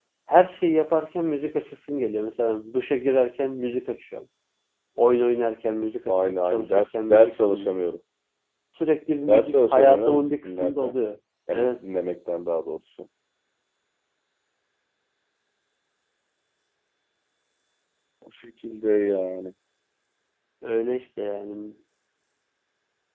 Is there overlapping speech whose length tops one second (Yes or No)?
Yes